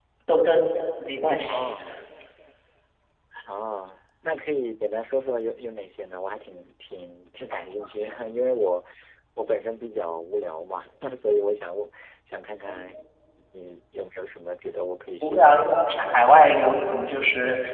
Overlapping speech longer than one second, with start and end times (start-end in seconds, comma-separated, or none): 15.2-16.7